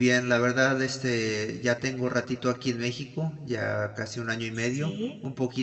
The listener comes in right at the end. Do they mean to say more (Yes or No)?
No